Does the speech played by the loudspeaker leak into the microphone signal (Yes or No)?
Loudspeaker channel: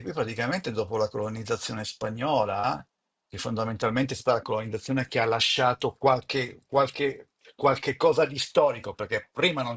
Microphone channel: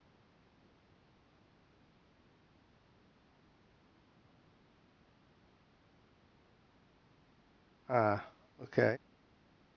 No